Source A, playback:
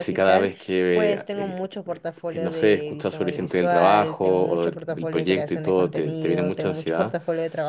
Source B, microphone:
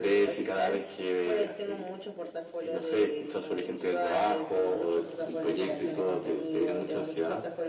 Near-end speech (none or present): none